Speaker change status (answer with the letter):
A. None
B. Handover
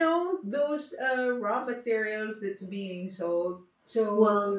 A